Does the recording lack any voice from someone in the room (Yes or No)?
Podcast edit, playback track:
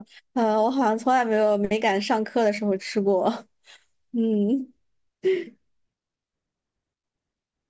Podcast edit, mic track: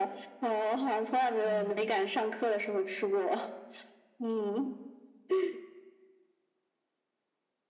No